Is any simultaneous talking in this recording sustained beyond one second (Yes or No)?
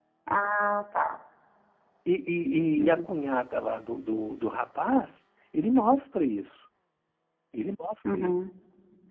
No